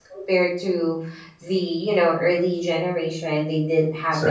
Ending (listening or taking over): listening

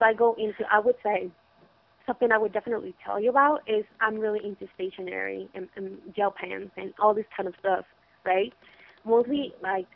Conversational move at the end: listening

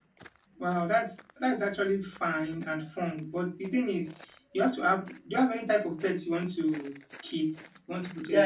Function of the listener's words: taking over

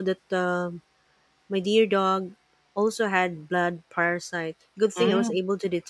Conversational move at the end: listening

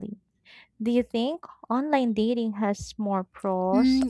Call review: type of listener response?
taking over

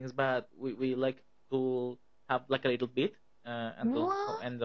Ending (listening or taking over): listening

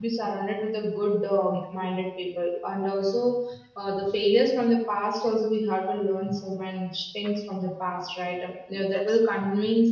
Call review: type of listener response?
listening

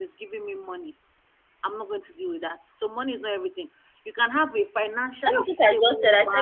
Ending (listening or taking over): taking over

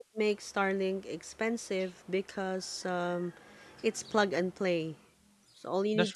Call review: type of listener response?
listening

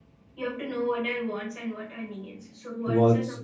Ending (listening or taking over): listening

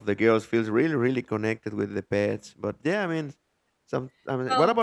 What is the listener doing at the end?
listening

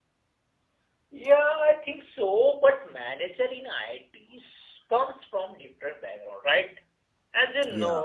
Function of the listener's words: listening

